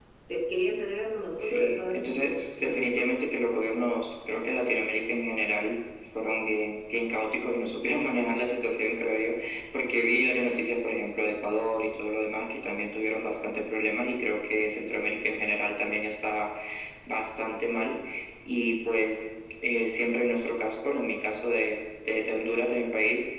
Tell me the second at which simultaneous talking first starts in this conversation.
1.4 s

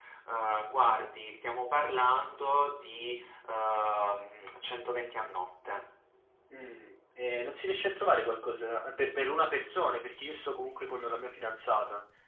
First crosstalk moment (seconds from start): none

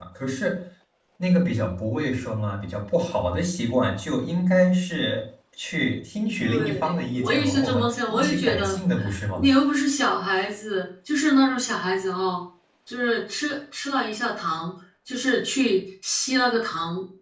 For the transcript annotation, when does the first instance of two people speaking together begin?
6.4 s

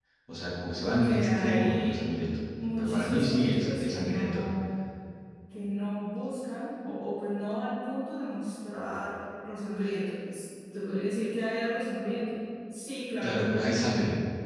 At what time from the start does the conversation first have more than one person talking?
0.8 s

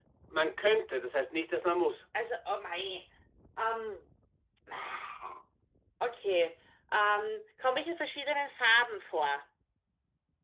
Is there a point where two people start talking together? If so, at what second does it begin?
none

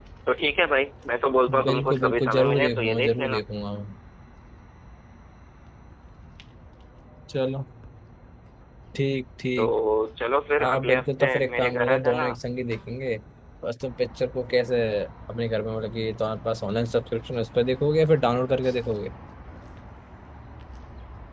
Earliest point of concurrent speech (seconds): 1.6 s

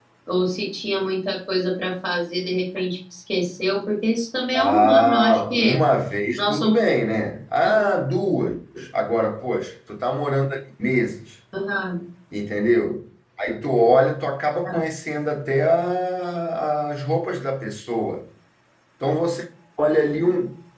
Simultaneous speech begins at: 4.5 s

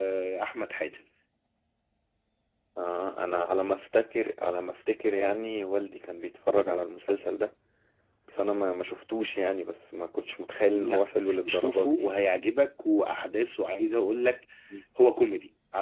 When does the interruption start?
10.7 s

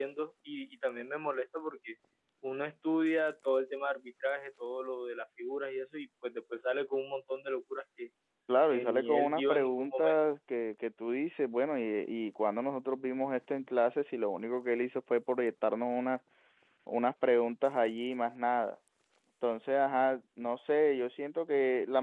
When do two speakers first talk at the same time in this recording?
8.7 s

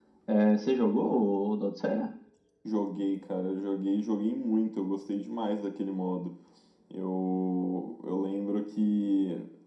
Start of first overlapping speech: none

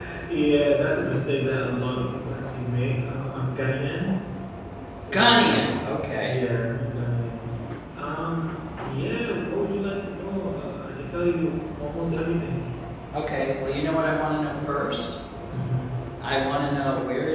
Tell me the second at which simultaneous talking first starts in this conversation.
5.1 s

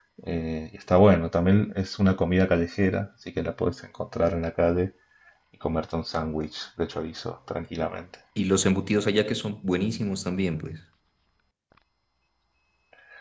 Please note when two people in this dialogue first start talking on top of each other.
none

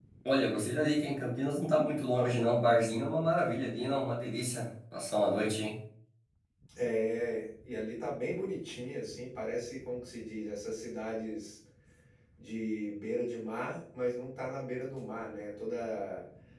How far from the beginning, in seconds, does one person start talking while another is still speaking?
none

